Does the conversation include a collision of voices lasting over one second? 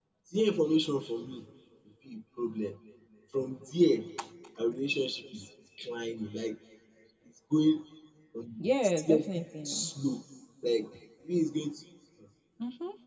Yes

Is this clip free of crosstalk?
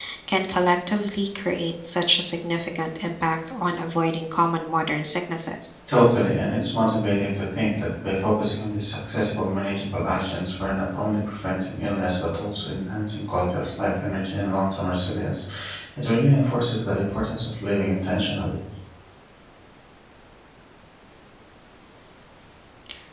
Yes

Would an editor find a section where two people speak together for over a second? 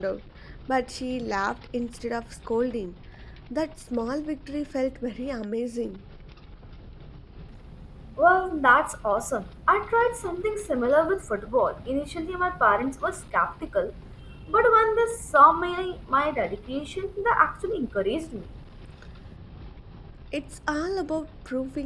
No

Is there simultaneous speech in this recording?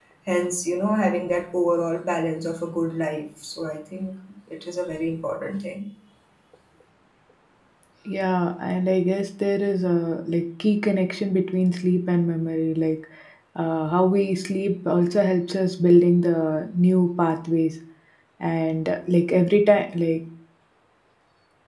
No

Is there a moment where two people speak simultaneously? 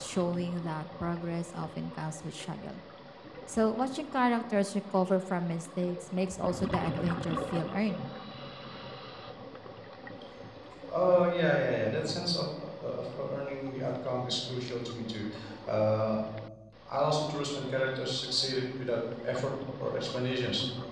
No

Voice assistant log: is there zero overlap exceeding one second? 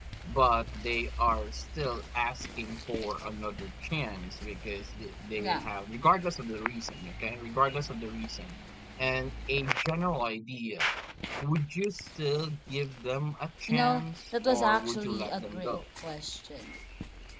No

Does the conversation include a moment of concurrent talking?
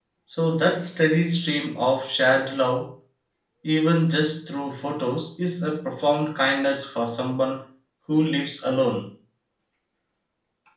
No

